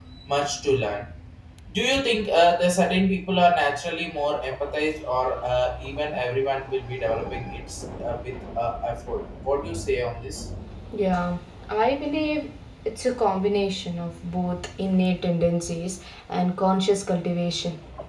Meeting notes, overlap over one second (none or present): none